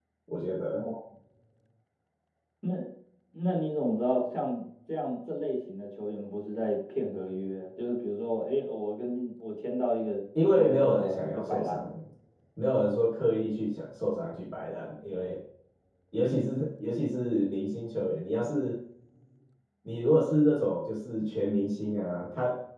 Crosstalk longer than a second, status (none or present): present